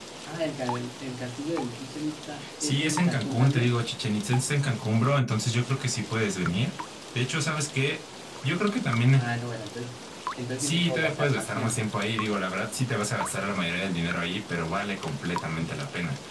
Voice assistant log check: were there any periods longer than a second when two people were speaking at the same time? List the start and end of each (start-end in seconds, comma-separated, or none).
2.6-3.8, 10.6-11.8